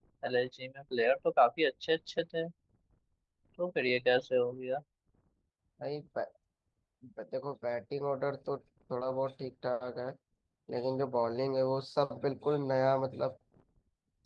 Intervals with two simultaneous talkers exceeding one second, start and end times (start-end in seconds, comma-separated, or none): none